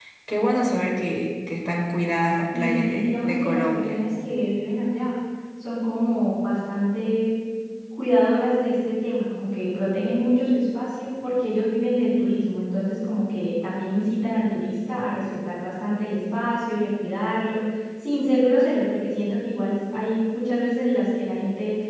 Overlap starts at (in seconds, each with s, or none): 2.5 s